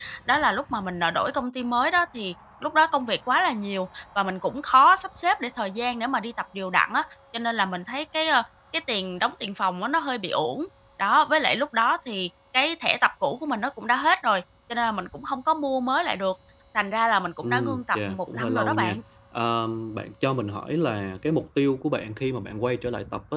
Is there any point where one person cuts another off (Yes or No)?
Yes